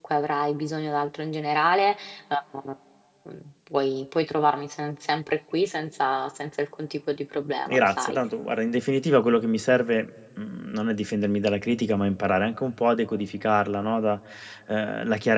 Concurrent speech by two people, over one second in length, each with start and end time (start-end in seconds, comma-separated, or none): none